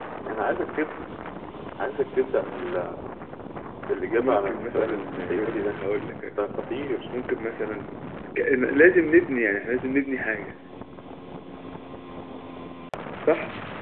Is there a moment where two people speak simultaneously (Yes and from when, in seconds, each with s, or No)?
Yes, from 4.2 s